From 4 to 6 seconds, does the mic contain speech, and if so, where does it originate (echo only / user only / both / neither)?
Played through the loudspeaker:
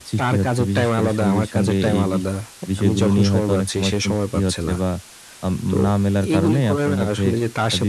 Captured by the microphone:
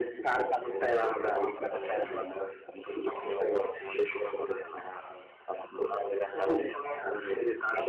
echo only